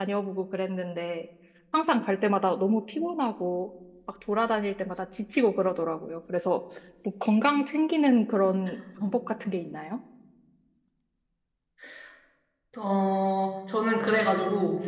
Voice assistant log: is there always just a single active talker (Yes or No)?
Yes